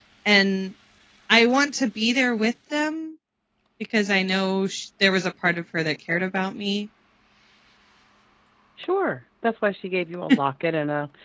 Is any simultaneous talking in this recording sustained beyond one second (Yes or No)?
No